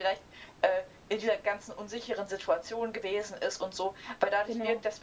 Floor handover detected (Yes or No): No